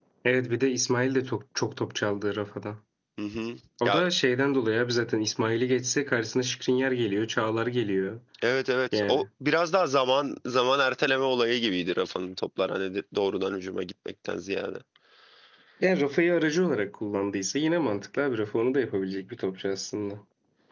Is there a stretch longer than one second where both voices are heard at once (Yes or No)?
No